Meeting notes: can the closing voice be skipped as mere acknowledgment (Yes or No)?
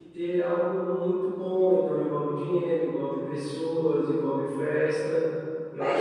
No